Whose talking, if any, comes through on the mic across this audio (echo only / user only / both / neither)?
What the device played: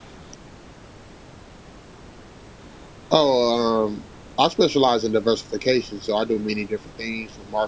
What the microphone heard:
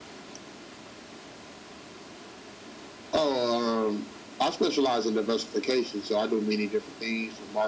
echo only